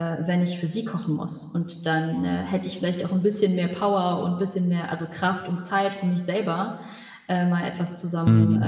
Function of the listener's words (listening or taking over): listening